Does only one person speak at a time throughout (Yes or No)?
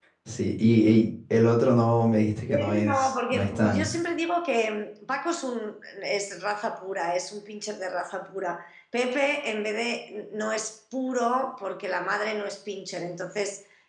No